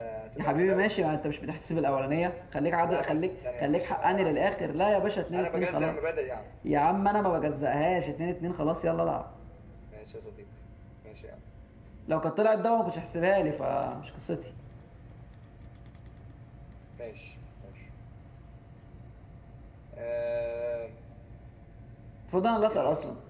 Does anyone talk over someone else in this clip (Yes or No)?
Yes